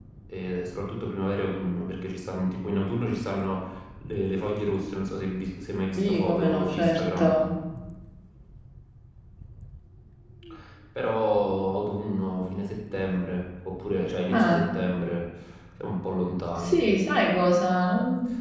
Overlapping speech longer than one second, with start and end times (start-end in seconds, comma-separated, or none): 6.0-7.3